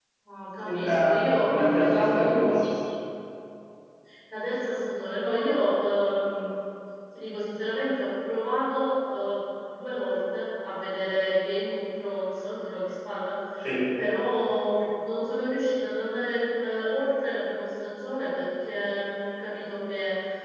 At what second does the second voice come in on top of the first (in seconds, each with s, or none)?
0.7 s